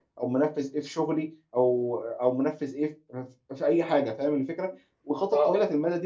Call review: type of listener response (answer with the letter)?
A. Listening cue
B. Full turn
A